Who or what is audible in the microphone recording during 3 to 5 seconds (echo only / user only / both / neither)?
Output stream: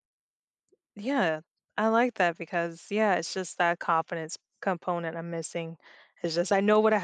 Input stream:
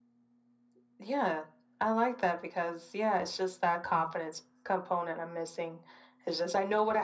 echo only